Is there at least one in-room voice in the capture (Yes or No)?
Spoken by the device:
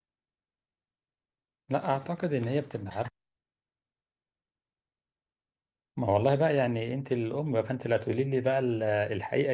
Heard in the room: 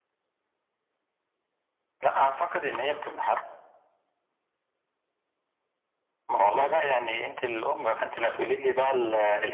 No